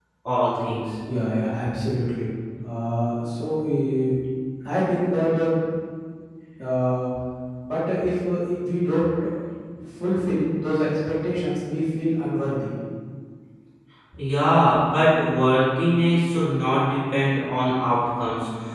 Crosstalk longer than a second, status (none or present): none